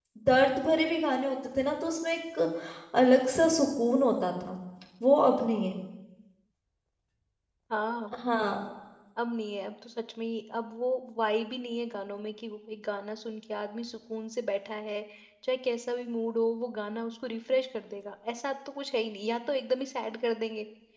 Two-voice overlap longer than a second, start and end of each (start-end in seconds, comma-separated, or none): none